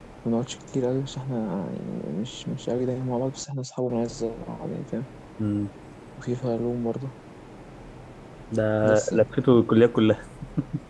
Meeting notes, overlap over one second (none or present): none